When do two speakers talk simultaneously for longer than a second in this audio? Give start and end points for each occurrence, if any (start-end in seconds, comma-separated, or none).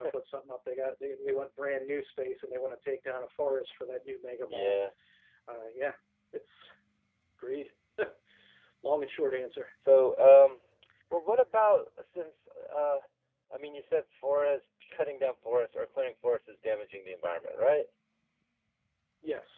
none